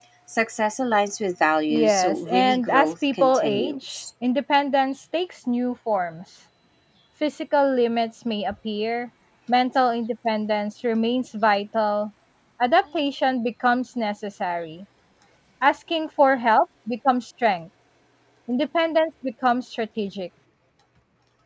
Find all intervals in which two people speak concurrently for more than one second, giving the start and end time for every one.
1.7-4.0

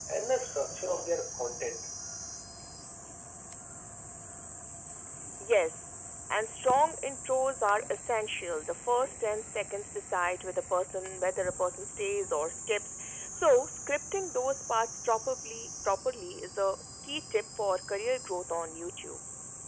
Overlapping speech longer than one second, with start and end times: none

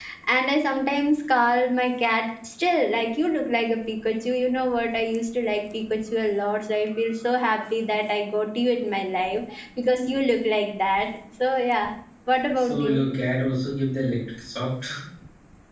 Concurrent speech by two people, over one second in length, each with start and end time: none

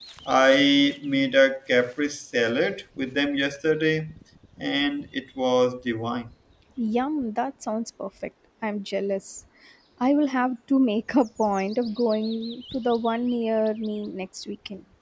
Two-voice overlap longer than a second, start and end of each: none

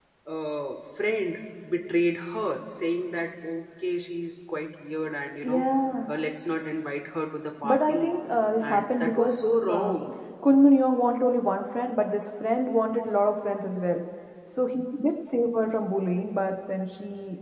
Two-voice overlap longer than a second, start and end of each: 8.6-9.9

